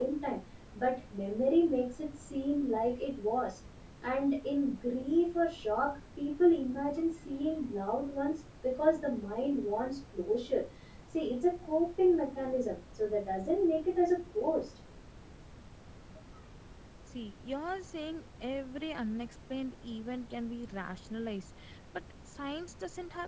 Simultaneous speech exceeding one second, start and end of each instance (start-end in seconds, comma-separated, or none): none